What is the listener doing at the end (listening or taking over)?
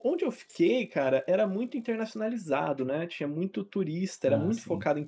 listening